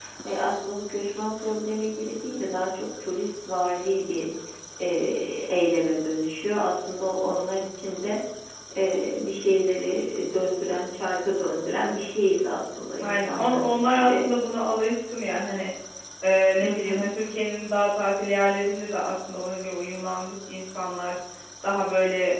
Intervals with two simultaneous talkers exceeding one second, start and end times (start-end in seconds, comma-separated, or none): 13.0-14.3